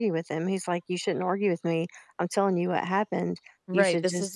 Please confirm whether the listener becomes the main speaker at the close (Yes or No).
Yes